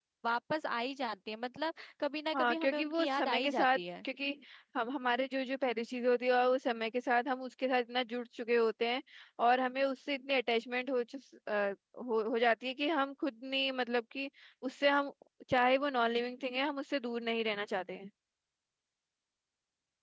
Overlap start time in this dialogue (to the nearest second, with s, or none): 2 s